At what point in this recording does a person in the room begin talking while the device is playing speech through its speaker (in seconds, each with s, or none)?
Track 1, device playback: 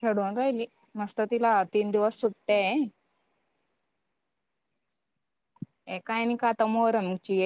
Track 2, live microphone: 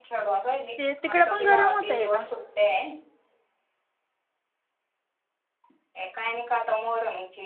0.8 s